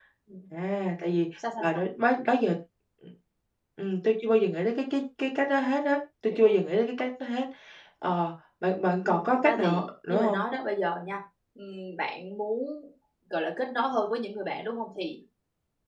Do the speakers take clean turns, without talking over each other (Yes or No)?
No